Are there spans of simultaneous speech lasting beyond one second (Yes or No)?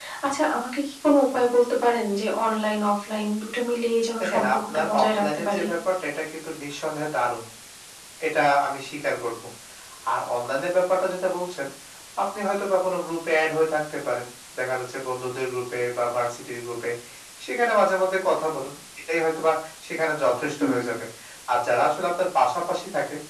Yes